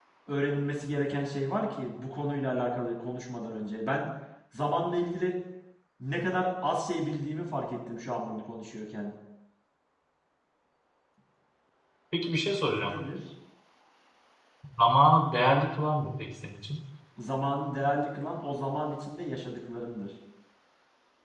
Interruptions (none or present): none